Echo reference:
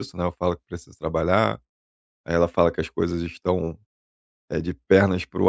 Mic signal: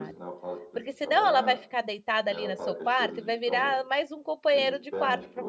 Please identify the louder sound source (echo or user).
user